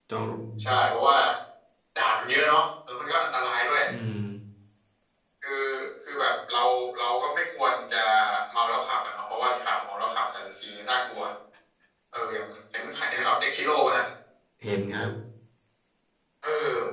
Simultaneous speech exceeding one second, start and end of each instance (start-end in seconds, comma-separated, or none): none